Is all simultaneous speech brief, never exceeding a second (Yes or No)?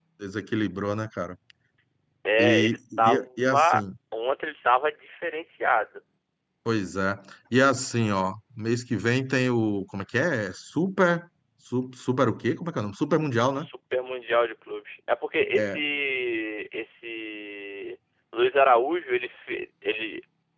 No